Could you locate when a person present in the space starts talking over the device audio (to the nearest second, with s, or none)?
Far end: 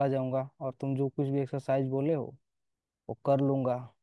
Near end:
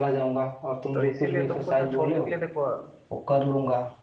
1 s